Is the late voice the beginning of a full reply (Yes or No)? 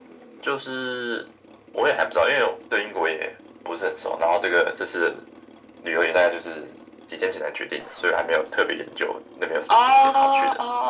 Yes